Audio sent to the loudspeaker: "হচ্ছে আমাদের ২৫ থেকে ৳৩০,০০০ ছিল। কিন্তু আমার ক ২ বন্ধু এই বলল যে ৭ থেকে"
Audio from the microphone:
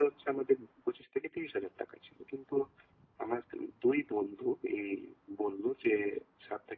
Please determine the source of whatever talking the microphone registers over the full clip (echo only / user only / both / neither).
echo only